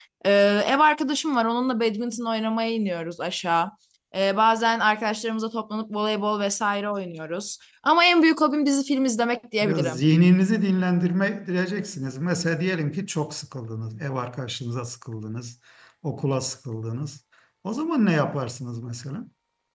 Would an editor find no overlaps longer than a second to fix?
Yes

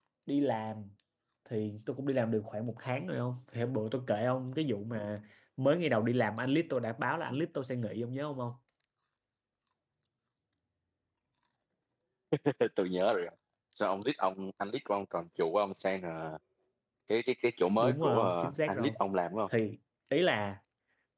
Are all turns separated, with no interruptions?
No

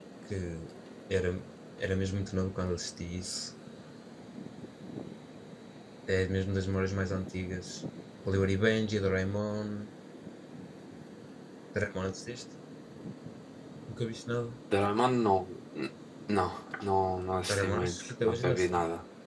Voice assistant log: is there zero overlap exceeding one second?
No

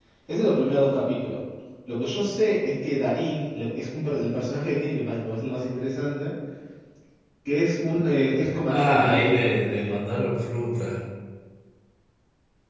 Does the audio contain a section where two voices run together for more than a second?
Yes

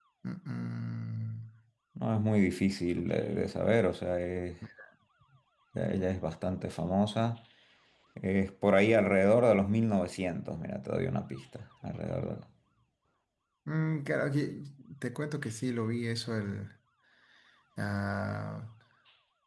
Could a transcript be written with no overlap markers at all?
Yes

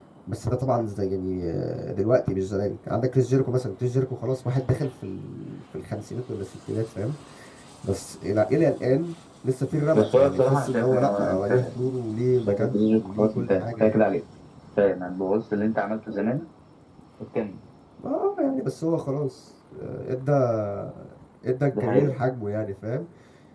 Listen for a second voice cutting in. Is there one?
Yes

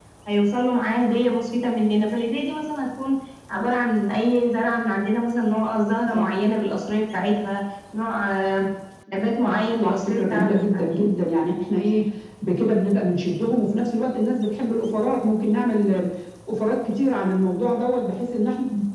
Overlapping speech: Yes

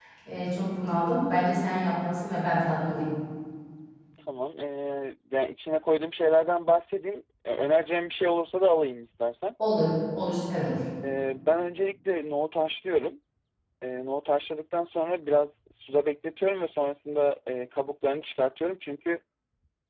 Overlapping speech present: No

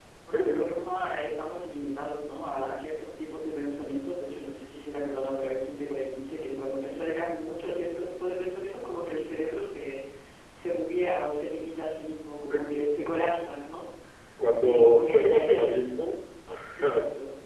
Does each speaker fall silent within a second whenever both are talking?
No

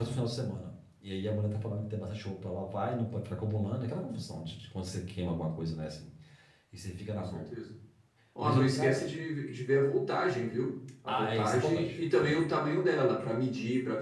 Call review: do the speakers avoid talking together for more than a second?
No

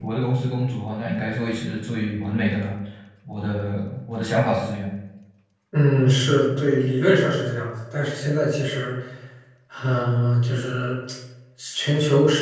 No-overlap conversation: Yes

